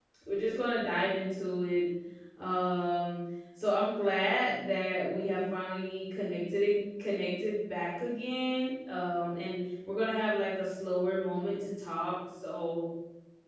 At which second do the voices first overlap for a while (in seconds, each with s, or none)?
none